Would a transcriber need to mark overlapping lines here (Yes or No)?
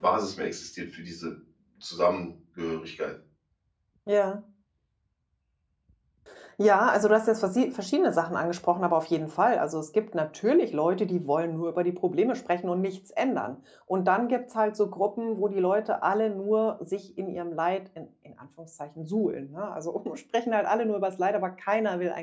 No